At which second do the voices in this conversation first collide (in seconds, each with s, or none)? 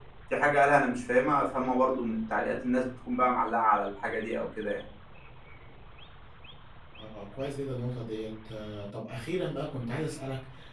none